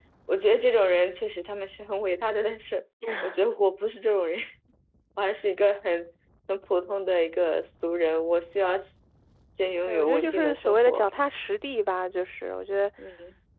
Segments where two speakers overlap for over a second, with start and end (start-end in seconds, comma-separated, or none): 9.9-11.1